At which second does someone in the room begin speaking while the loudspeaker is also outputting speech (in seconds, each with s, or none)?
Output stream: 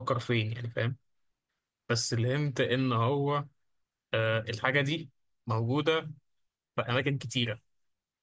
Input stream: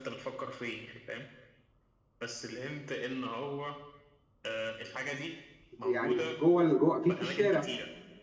5.8 s